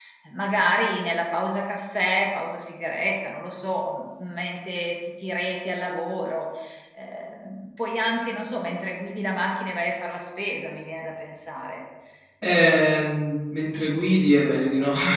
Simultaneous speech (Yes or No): No